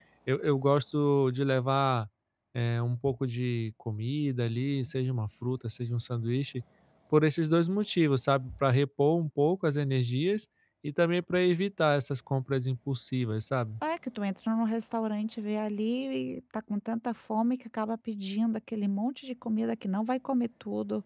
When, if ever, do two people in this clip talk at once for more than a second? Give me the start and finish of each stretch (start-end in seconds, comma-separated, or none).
none